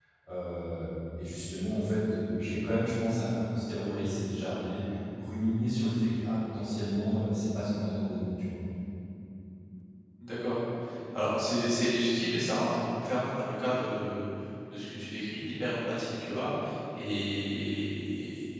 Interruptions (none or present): none